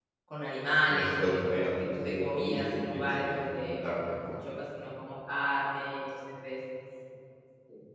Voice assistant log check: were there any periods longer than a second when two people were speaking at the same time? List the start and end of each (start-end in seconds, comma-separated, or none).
0.8-4.4